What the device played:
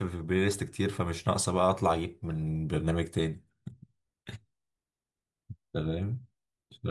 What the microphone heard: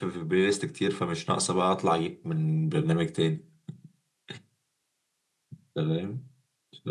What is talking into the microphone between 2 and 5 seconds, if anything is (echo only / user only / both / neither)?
echo only